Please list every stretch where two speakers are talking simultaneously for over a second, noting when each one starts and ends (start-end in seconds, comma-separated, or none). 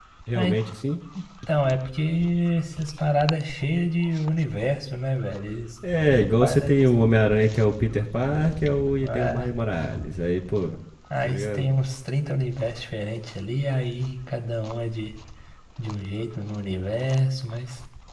none